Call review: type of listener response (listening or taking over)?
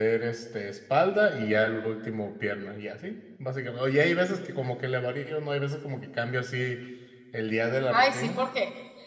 taking over